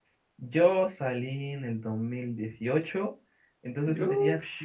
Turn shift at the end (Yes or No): No